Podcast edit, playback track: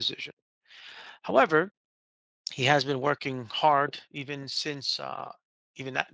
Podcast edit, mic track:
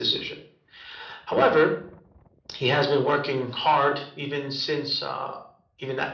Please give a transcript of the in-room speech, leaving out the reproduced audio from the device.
none

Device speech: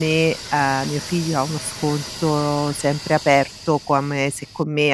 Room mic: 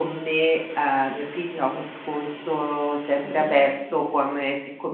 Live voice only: Mh-mh.

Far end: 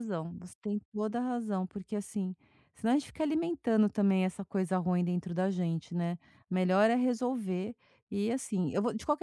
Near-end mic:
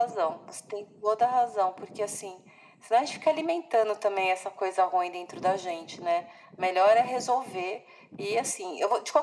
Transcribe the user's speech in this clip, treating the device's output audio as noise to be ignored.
none

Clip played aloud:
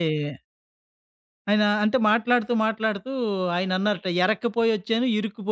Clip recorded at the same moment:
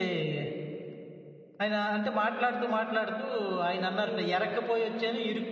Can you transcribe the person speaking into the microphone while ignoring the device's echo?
అయ్యో!

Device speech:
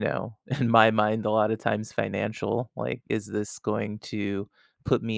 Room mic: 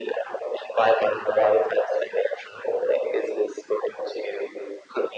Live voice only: none

